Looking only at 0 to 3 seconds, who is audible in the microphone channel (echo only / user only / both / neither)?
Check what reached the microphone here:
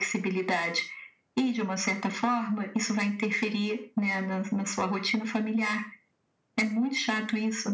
echo only